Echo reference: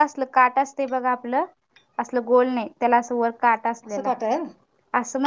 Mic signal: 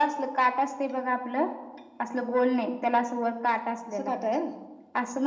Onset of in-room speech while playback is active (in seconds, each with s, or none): none